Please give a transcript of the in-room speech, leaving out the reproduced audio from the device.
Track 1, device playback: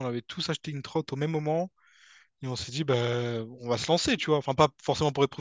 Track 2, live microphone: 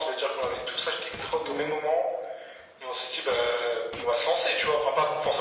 Ouais.

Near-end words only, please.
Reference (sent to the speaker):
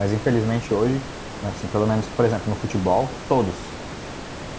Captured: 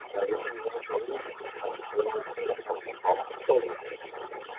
none

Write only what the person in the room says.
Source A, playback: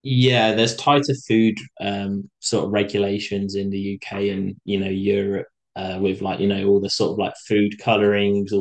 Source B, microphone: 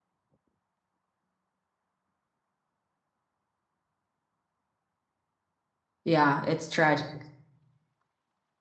Yeah, it's tragic.

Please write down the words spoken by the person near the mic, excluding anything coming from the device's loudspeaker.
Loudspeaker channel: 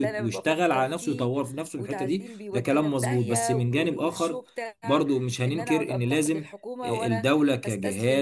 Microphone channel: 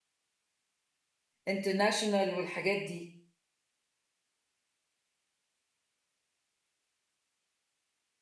انترناشونال والحاجات دي

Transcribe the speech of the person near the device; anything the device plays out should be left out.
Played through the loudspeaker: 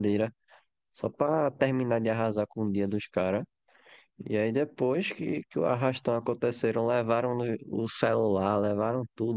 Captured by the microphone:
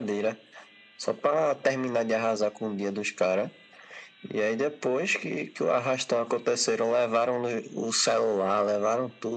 none

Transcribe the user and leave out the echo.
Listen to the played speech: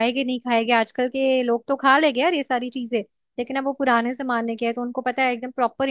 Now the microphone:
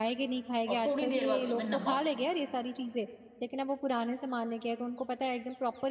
और थोड़ी देर बाद उसमें नमक

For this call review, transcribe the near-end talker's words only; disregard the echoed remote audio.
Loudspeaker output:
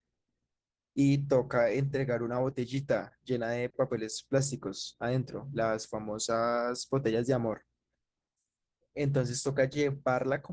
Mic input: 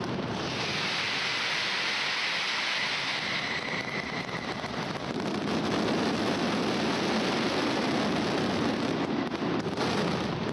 none

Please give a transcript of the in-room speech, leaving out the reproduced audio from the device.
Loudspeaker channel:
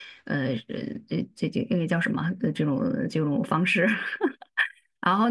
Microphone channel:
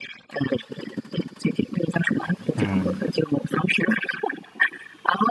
嗯

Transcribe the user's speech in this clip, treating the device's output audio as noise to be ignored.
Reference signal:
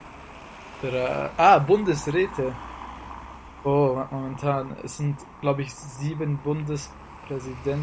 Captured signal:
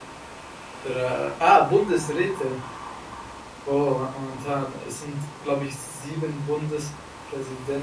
none

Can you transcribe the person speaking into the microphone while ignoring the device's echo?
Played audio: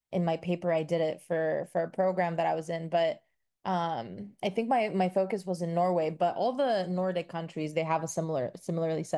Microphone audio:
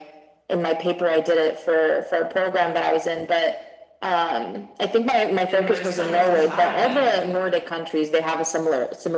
in like some societies,

